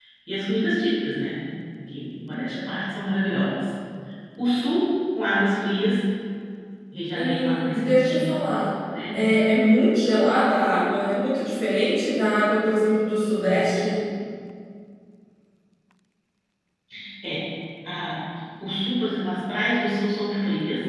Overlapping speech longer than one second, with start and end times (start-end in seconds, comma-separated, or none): 7.1-8.4